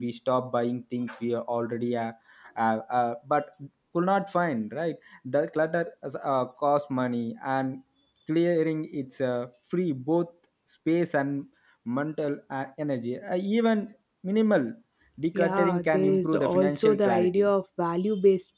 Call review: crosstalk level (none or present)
present